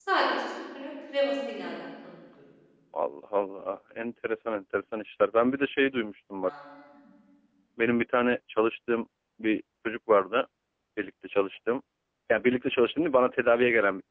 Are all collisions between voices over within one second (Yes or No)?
Yes